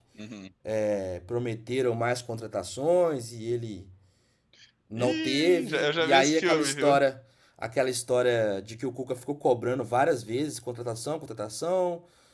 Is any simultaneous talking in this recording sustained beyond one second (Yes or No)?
Yes